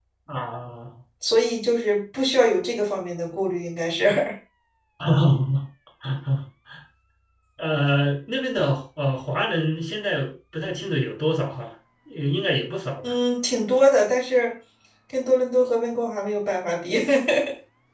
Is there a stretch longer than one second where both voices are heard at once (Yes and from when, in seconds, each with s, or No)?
No